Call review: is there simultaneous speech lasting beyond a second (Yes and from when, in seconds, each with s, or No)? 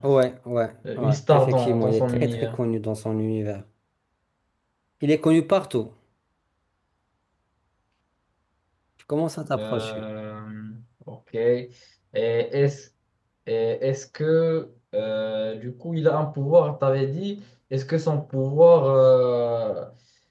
Yes, from 1.0 s